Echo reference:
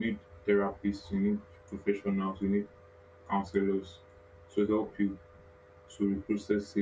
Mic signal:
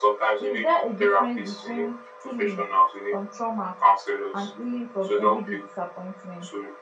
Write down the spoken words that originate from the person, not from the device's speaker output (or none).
Is there a difference between healing from trauma and healing from everyday disappointment?